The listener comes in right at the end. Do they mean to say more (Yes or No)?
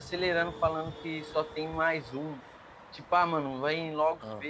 No